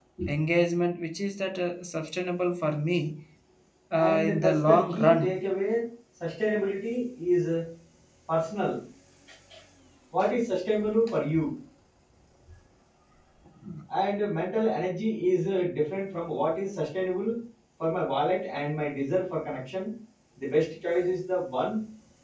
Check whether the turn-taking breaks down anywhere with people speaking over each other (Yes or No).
Yes